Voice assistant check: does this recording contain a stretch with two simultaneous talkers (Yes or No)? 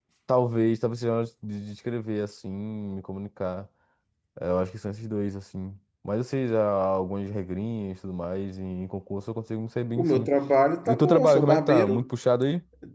Yes